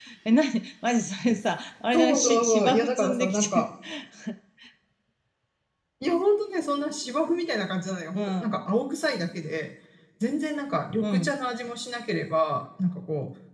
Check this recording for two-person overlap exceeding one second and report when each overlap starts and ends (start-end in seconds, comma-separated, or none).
1.9-3.7